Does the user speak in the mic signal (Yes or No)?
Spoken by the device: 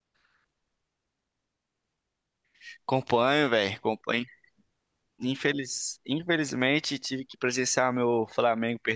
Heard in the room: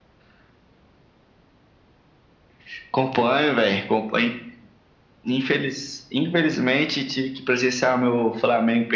No